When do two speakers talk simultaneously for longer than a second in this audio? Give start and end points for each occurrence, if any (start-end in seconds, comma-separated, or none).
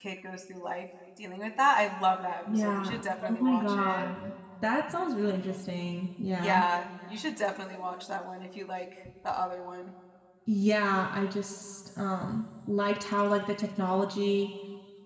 2.5-4.1